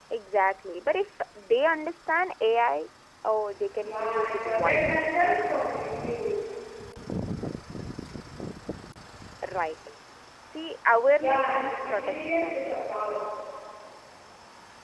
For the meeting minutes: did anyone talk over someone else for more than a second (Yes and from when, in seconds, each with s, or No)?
Yes, from 3.8 s